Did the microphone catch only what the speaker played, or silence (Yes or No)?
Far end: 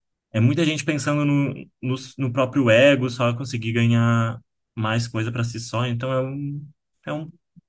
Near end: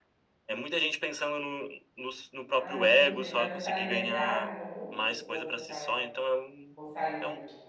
No